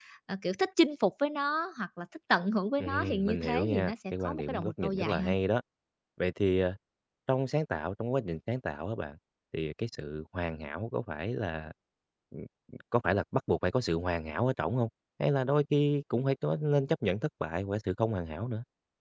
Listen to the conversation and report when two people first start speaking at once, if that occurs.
2.8 s

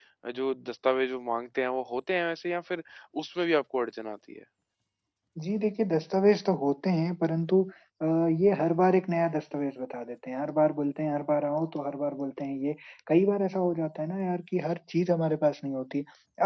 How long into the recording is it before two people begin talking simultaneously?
none

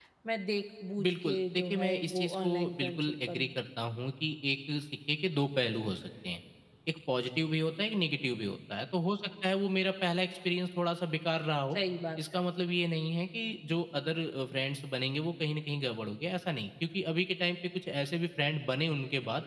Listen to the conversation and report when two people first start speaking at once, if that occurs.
1.0 s

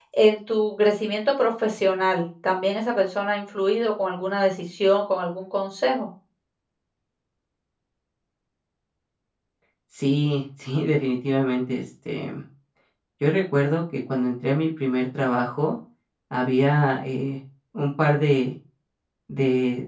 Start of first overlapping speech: none

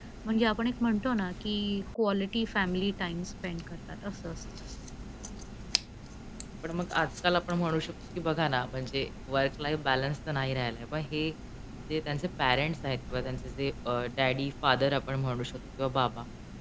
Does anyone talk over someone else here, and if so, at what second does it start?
none

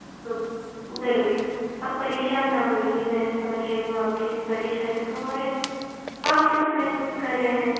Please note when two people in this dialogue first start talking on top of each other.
none

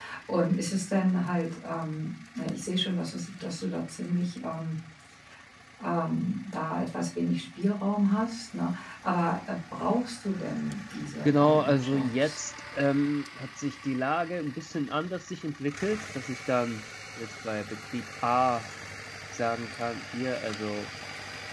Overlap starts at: 11.2 s

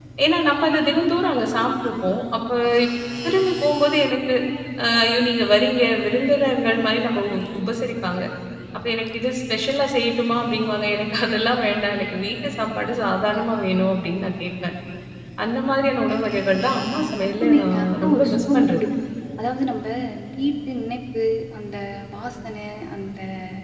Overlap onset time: 17.4 s

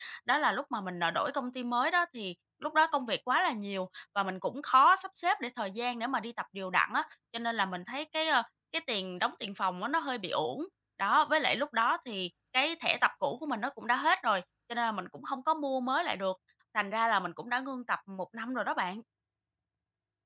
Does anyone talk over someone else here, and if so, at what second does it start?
none

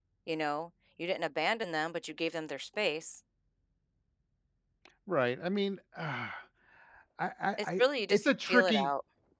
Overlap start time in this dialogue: 7.6 s

